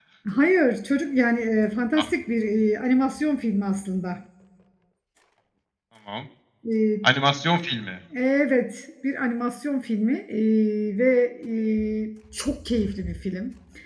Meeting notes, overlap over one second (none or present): none